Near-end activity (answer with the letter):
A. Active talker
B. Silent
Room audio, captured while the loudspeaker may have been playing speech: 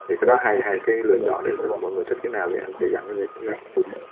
A